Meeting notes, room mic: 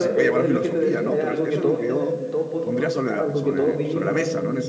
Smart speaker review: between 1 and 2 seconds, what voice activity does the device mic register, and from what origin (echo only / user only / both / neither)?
both